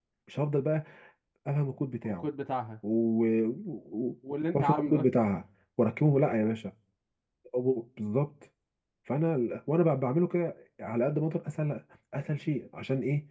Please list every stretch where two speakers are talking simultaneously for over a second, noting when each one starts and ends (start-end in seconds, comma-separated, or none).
none